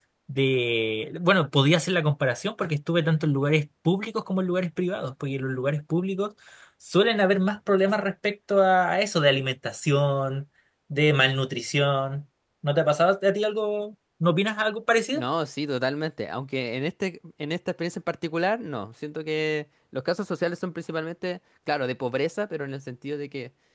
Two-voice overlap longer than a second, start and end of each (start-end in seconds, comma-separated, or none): none